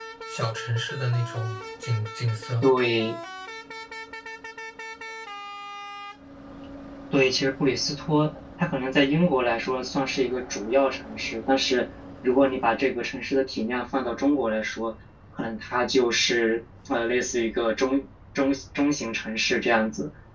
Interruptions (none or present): none